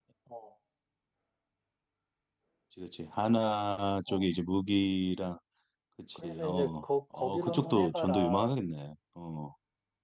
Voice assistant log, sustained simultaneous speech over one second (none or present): present